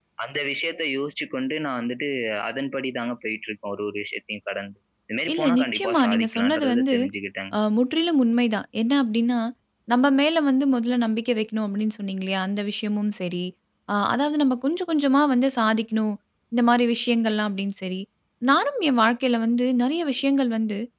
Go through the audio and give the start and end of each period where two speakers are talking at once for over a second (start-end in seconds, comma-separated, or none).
5.3-6.9